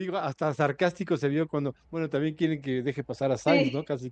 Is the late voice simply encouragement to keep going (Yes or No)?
No